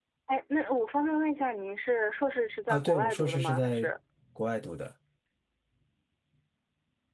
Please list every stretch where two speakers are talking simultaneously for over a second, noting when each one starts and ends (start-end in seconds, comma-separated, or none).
2.7-3.9